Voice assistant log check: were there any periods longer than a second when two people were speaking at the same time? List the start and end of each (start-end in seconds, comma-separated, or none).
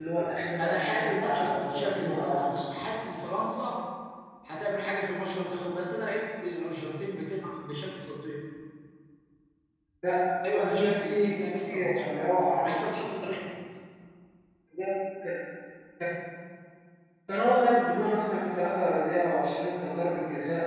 0.6-2.6, 10.5-12.1